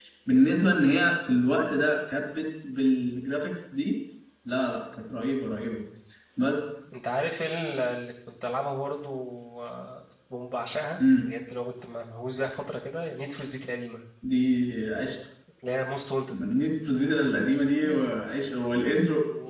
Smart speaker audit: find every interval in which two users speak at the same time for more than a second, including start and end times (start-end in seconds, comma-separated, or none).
none